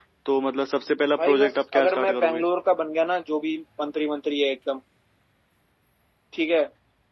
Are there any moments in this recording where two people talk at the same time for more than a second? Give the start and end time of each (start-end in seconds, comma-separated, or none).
1.2-2.4